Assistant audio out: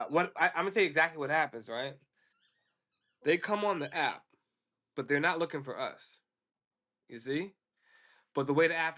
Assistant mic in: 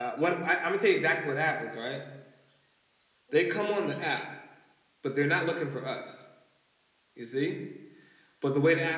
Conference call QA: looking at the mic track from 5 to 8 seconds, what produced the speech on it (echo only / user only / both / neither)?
echo only